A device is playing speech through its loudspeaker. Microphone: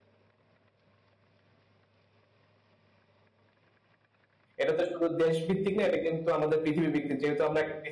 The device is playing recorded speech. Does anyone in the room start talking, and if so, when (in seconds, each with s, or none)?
4.6 s